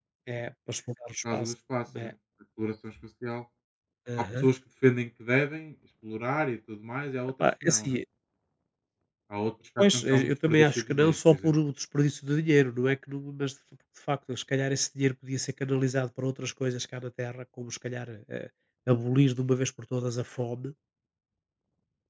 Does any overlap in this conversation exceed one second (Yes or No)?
Yes